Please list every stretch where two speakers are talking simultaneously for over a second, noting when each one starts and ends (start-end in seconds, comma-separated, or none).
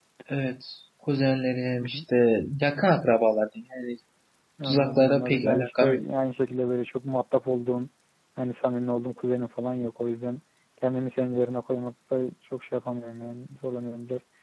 4.7-6.0